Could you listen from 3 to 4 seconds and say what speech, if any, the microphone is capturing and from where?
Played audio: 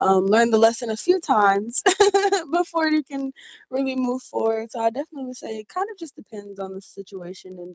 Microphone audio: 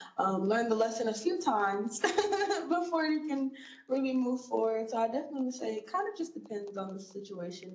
echo only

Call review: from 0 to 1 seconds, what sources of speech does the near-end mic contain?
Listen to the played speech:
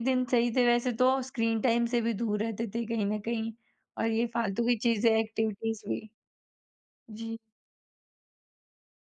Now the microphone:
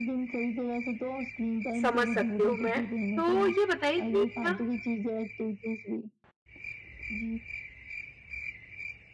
echo only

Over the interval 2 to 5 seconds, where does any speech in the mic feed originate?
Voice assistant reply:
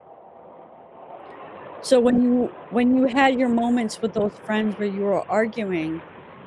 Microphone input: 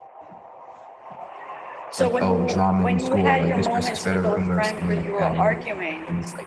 both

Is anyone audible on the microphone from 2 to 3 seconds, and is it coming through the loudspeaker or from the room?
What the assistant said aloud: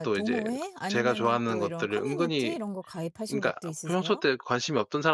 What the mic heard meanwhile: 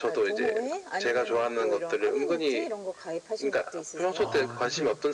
echo only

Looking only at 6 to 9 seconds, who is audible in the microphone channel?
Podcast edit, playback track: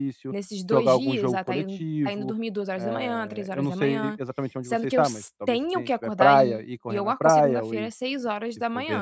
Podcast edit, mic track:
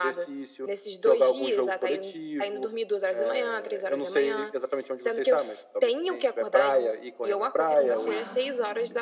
both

